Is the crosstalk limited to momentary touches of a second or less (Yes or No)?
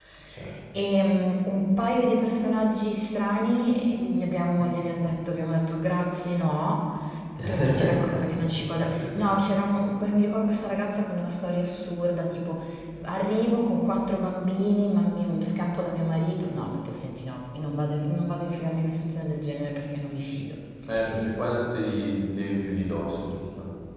Yes